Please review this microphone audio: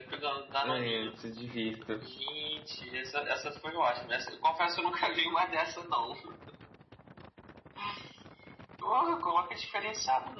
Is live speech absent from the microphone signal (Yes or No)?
No